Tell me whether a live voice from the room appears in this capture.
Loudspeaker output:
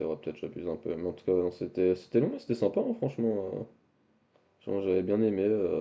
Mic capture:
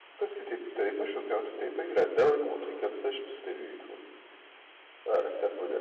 Yes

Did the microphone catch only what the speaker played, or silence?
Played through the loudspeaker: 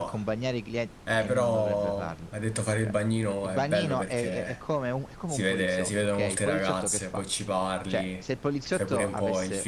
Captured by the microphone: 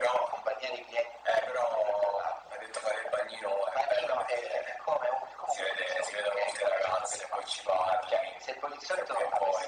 Yes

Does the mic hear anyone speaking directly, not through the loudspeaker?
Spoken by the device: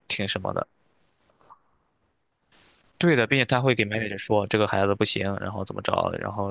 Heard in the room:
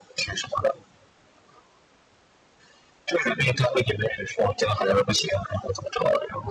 No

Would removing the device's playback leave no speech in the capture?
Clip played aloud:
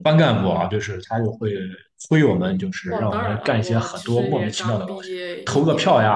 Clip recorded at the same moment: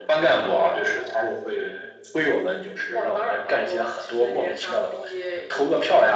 Yes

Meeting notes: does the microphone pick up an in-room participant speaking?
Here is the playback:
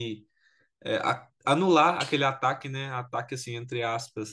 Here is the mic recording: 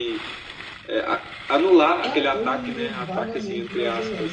Yes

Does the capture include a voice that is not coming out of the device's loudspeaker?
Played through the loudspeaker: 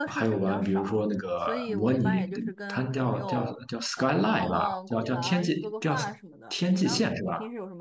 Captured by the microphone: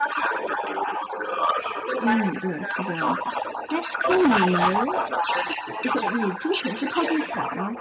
Yes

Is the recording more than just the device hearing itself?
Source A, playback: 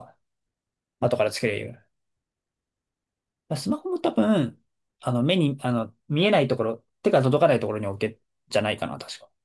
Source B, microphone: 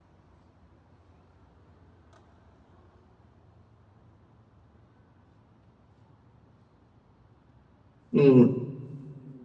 Yes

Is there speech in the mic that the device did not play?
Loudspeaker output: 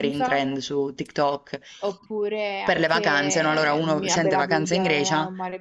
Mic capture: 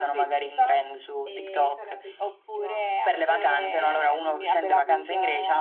Yes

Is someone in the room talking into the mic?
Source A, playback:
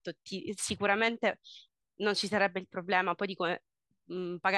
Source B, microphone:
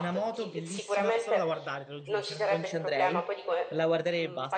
Yes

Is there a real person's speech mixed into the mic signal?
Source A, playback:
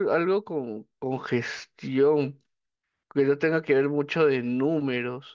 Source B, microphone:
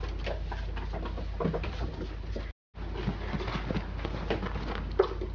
No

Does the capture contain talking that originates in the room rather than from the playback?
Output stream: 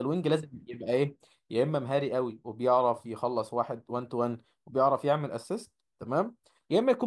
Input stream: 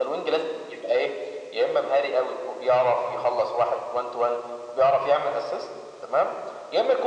No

